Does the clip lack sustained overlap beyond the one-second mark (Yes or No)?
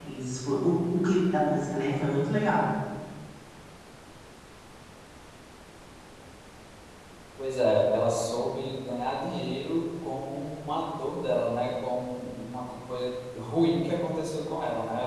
Yes